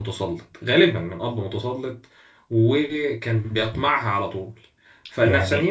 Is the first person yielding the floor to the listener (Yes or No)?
No